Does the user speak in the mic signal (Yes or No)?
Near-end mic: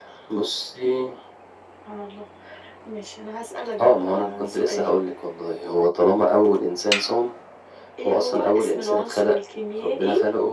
No